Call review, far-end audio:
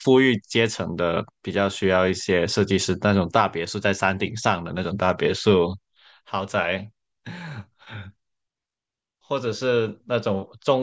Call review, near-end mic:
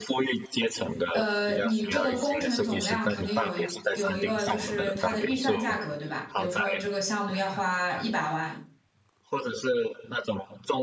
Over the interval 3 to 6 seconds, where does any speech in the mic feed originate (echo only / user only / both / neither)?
both